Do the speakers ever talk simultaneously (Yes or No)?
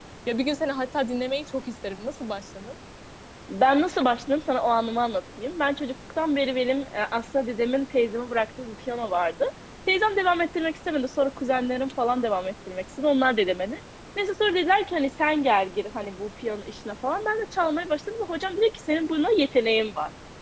No